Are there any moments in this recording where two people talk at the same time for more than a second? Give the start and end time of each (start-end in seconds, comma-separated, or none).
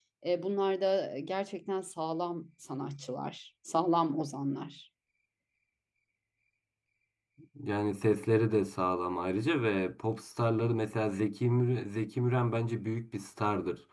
none